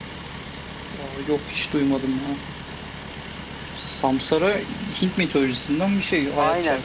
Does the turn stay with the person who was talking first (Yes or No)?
No